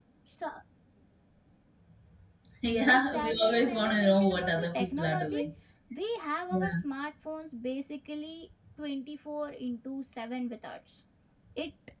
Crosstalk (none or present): present